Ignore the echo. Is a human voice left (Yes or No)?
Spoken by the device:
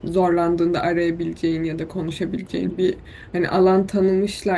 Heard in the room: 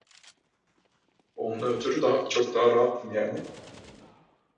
Yes